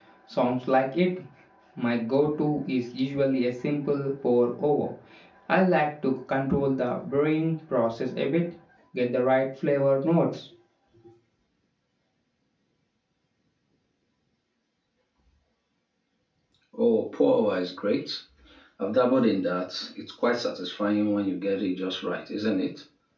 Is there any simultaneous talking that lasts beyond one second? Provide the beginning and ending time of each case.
none

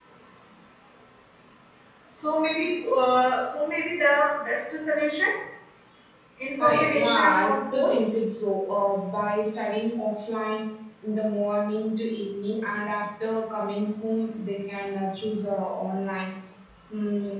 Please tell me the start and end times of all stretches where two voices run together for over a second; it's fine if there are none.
6.6-7.9

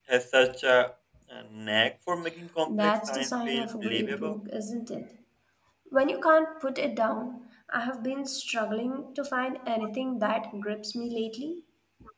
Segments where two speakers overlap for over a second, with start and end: 2.7-4.3

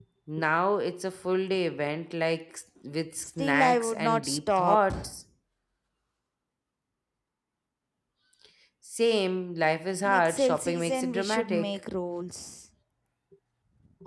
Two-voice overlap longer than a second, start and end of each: 3.2-4.9, 10.0-11.8

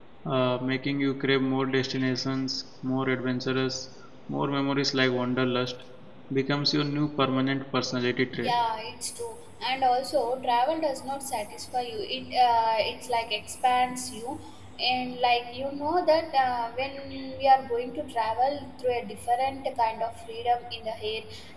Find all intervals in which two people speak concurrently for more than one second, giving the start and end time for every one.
none

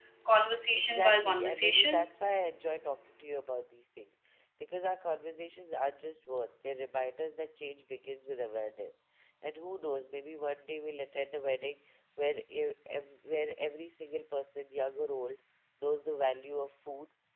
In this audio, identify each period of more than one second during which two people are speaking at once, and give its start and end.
0.7-2.1

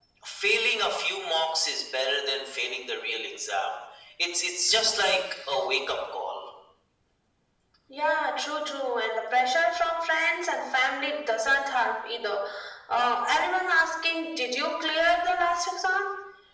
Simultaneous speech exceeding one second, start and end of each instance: none

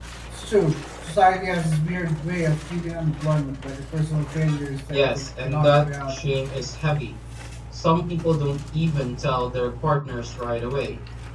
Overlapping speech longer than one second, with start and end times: 4.9-6.2

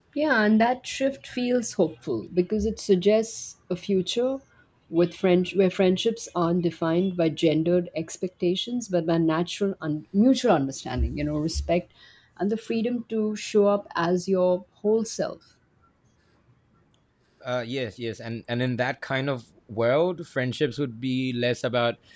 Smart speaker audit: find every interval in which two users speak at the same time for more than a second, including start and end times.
none

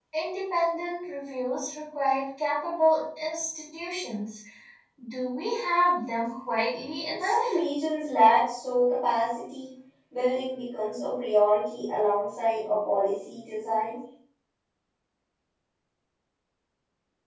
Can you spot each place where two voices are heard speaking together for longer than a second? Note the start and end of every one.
none

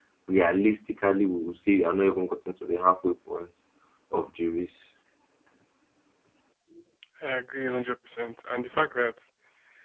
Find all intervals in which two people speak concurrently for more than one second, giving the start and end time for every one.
none

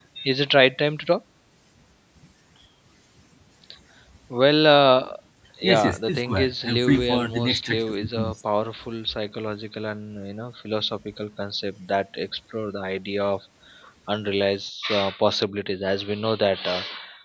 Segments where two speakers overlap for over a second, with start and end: 5.6-8.3

